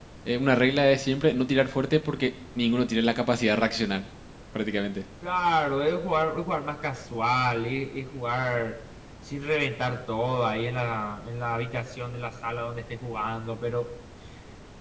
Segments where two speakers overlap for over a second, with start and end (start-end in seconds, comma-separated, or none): none